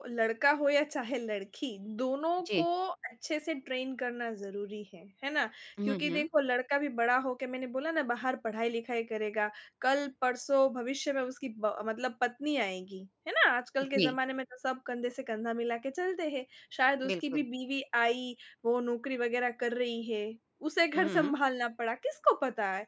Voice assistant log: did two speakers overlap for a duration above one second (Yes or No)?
No